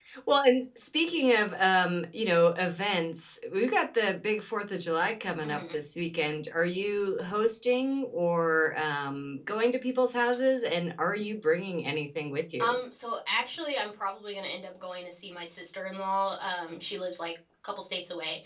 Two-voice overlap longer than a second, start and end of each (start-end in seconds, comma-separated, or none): none